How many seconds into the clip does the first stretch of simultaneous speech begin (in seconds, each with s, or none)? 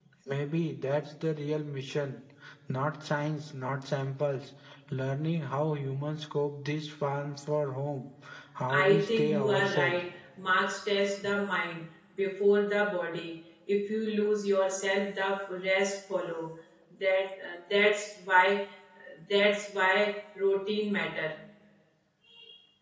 8.7 s